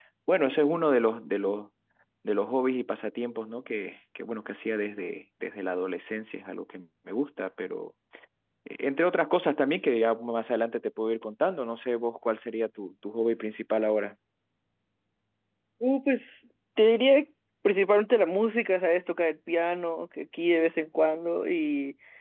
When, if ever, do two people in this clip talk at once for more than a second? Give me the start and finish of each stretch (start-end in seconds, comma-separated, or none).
none